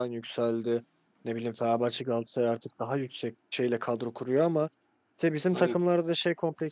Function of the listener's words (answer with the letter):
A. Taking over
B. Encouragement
B